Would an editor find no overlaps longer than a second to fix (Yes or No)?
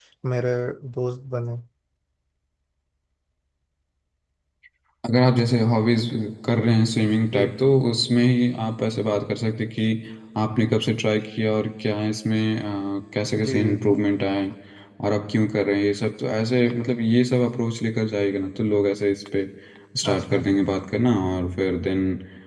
Yes